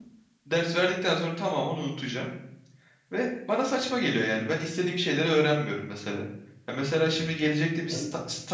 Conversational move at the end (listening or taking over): listening